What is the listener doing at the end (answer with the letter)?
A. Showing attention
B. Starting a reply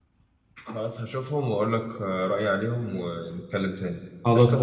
B